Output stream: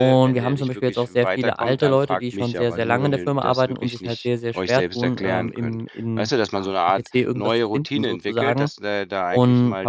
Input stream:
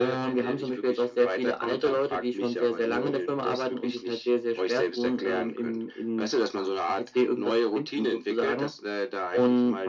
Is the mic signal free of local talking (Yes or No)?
Yes